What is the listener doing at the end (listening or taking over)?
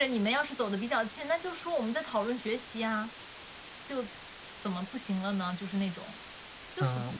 taking over